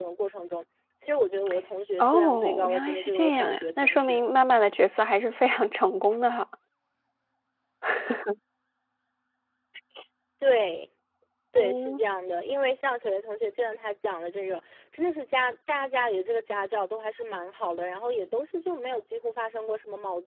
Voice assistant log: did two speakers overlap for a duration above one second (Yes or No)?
Yes